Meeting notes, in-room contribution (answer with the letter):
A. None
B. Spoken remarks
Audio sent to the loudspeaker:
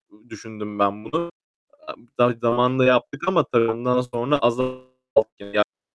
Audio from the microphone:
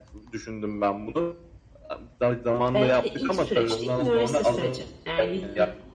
B